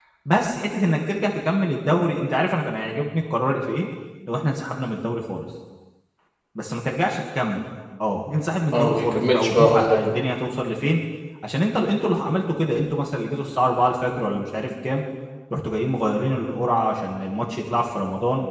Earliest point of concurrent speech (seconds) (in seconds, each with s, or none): 8.7 s